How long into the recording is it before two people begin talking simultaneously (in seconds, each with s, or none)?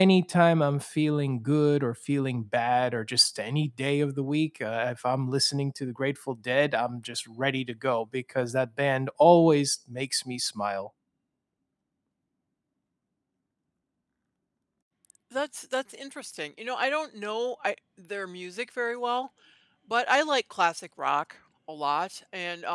none